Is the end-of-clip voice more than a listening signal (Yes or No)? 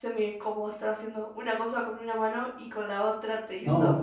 Yes